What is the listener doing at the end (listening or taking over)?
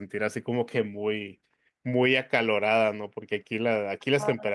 listening